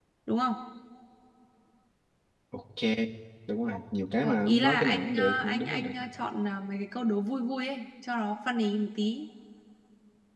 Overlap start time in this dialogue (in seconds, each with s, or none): 4.2 s